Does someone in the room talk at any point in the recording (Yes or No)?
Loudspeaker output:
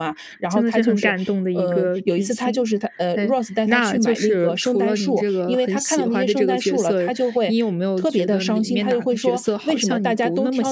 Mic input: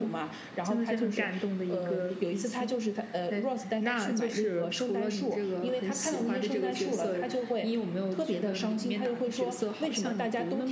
No